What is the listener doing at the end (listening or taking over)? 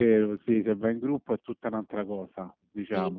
taking over